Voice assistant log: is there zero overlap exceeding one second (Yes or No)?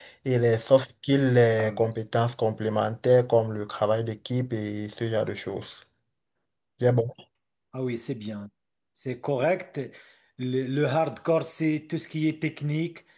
Yes